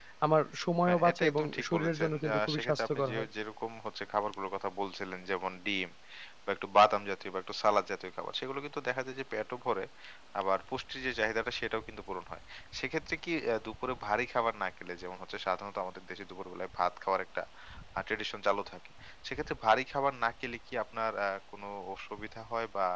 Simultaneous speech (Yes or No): Yes